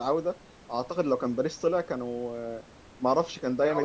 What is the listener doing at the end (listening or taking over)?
listening